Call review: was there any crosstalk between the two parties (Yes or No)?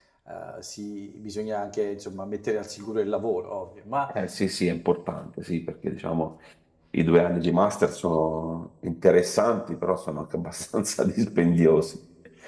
No